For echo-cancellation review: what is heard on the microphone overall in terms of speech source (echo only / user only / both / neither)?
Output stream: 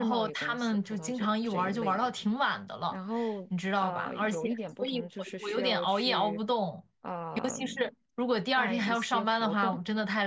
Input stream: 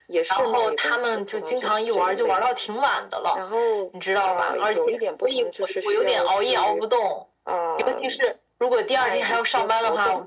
echo only